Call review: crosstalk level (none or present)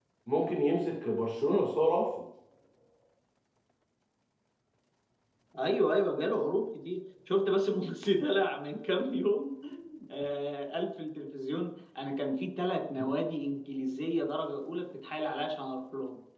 none